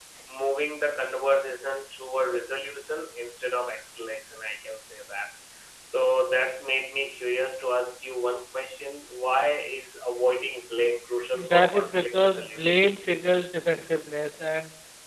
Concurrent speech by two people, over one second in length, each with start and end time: 11.5-12.7

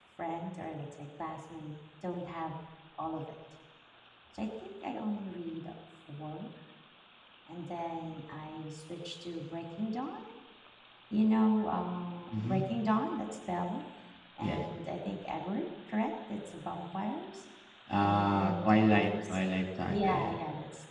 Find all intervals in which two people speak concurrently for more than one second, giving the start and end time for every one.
18.0-19.4

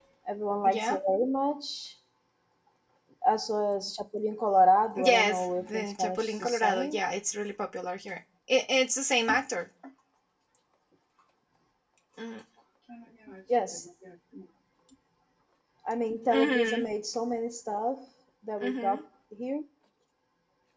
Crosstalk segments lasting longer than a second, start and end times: 5.0-7.0

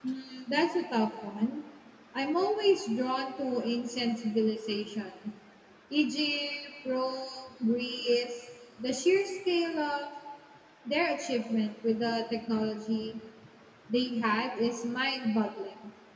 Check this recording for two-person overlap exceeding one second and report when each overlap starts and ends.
none

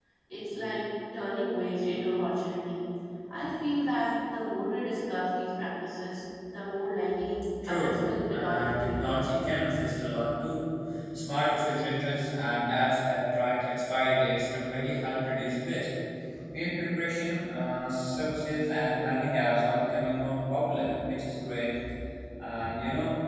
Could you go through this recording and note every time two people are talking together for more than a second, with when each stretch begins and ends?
7.7-9.1

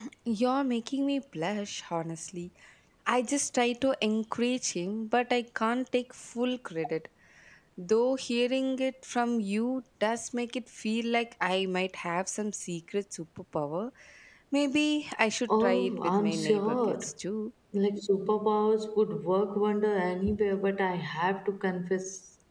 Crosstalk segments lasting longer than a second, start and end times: 15.6-17.0

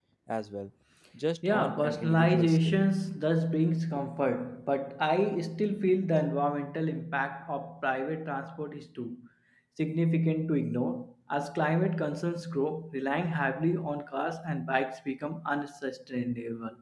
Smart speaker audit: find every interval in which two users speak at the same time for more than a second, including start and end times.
1.4-2.8

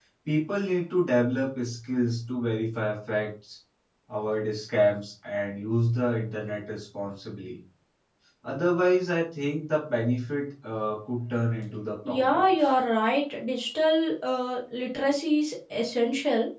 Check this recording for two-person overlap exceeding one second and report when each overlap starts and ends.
none

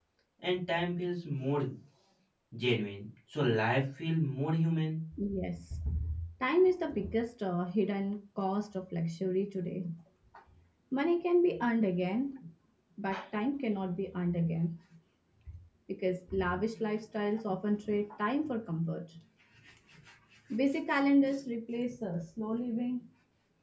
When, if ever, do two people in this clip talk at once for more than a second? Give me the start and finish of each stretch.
none

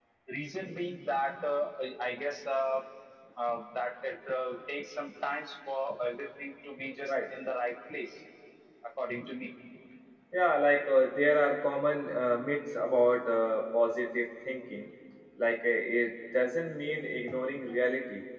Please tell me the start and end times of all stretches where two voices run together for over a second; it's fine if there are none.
none

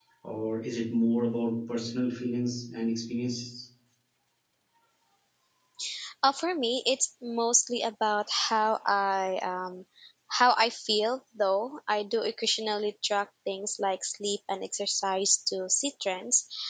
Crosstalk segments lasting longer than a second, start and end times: none

